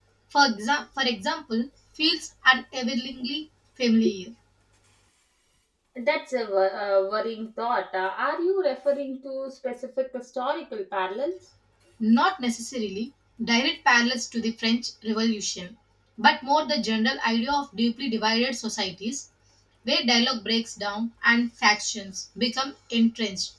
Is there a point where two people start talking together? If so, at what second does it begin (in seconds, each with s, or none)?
none